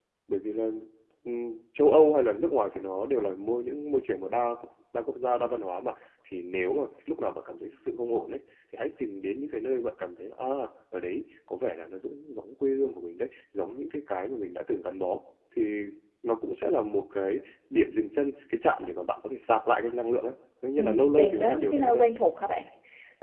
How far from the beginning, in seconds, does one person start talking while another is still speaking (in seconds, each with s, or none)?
20.8 s